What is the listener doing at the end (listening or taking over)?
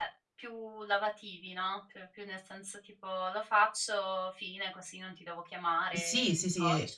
taking over